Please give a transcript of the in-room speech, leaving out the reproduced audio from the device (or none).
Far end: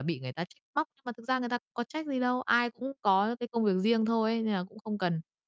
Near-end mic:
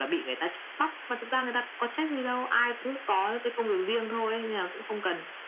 none